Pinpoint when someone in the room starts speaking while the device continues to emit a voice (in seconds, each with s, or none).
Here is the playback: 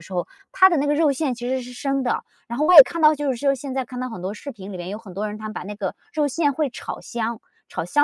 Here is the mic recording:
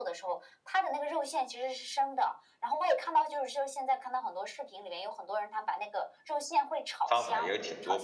7.0 s